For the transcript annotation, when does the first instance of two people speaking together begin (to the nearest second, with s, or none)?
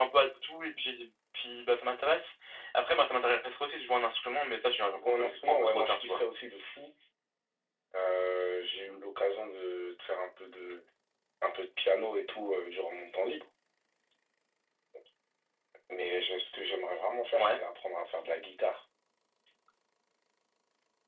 5 s